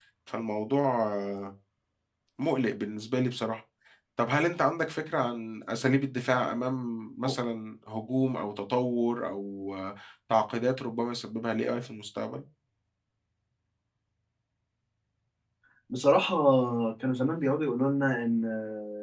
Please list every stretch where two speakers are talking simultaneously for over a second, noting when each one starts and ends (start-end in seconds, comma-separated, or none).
none